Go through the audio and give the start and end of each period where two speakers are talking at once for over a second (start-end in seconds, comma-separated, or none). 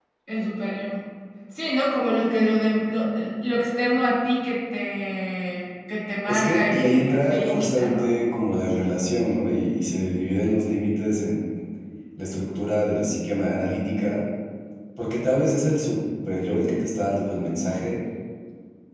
6.3-8.1